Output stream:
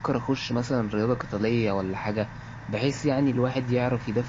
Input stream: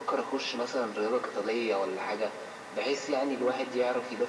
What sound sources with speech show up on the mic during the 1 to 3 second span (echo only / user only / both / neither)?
echo only